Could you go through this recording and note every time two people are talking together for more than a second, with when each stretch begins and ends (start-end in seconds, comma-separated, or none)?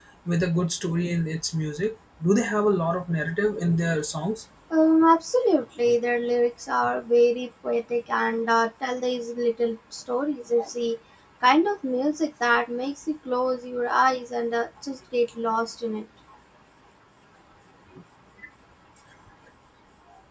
none